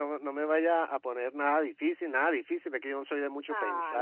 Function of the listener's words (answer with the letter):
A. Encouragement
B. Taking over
B